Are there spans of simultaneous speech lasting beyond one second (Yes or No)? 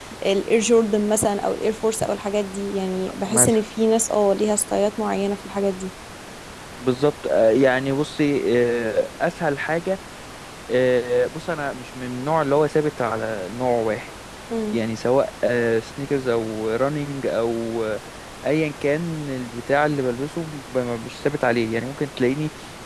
No